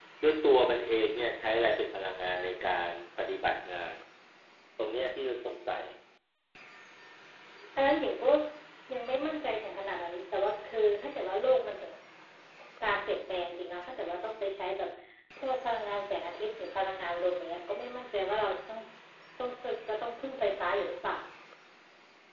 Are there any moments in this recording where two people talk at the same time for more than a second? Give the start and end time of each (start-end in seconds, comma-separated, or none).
none